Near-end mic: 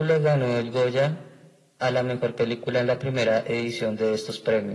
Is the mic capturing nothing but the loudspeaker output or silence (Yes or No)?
Yes